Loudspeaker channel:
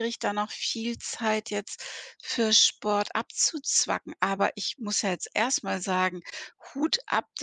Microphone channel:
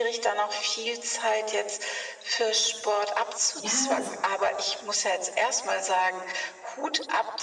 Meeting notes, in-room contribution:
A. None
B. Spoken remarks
B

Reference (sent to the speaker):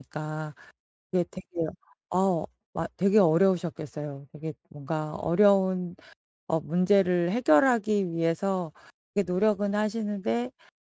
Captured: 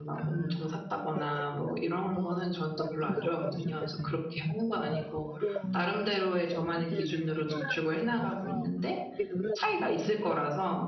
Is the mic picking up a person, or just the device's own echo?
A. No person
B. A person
B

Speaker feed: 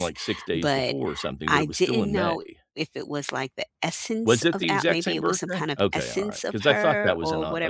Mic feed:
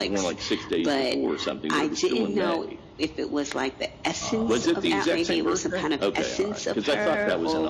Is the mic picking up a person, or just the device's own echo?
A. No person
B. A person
B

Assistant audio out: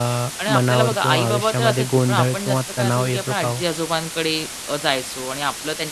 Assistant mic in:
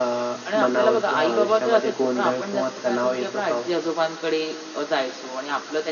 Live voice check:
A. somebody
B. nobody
B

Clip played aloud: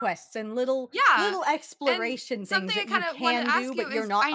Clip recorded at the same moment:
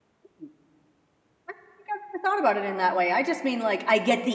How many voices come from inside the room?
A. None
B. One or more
B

